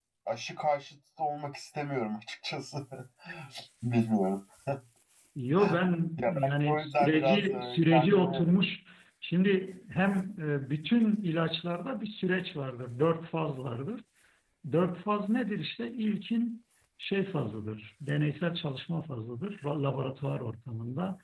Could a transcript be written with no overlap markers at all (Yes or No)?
No